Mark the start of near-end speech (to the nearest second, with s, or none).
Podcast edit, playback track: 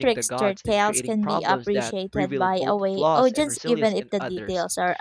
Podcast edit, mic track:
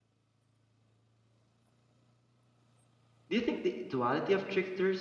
3 s